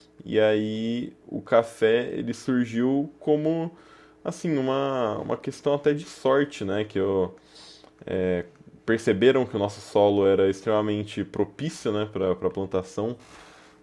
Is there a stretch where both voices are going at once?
No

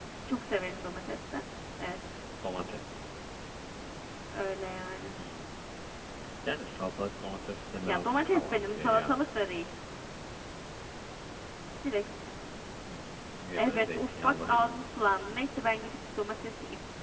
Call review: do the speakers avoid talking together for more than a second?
No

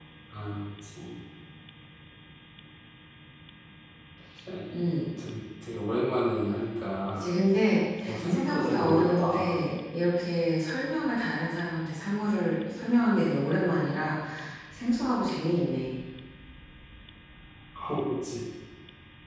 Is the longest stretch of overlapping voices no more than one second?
No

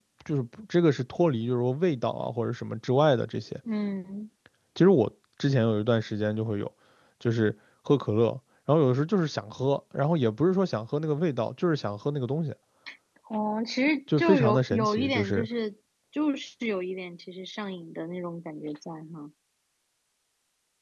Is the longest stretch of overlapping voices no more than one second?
No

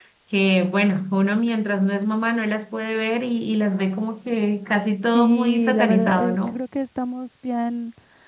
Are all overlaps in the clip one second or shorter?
No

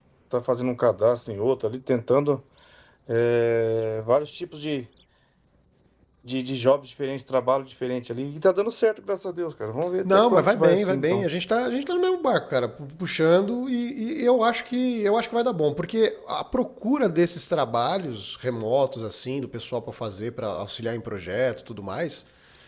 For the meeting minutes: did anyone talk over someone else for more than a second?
Yes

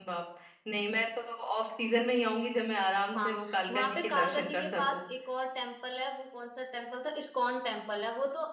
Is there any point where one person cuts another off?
Yes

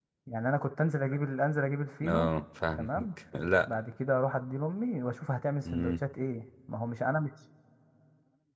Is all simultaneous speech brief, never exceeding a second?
Yes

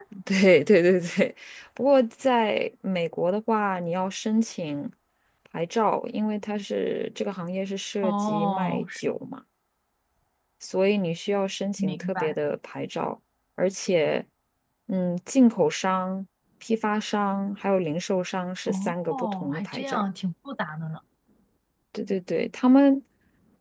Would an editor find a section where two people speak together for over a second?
Yes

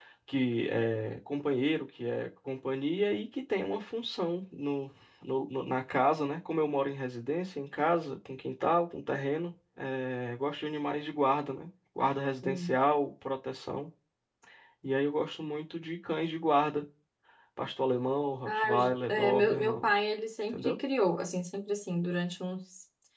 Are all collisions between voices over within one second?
No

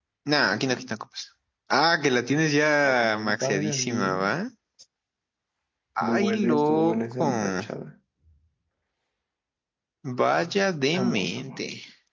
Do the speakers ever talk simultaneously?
Yes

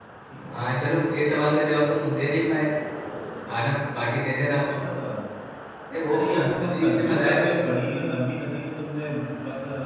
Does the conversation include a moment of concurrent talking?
Yes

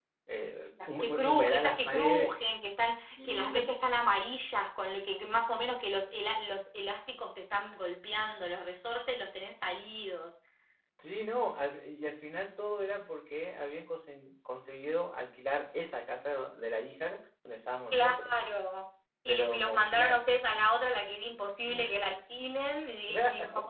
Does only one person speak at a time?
No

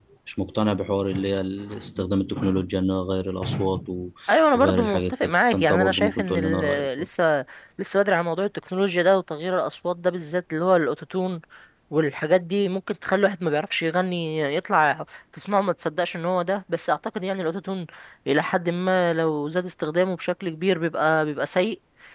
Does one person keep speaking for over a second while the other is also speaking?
Yes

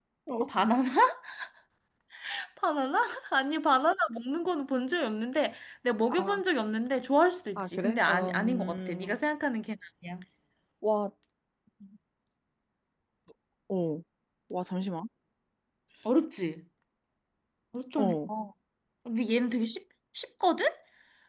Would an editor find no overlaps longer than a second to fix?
No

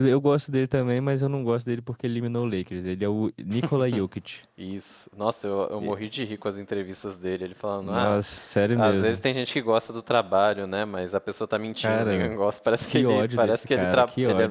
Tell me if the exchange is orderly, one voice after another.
No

